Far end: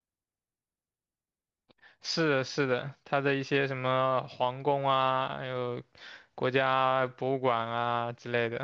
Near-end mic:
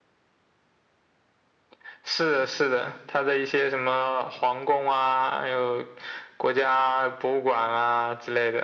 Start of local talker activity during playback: none

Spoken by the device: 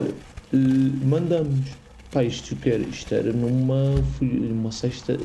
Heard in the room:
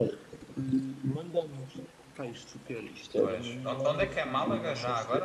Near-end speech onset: 3.1 s

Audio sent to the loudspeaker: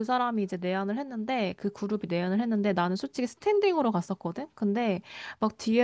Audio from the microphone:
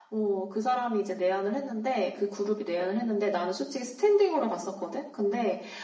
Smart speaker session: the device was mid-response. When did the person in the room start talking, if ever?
none

